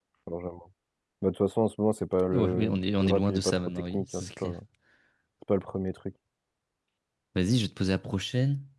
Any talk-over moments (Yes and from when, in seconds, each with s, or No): Yes, from 2.3 s